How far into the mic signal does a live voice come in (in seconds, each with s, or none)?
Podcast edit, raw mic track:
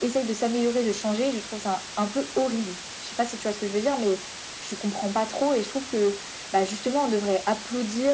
none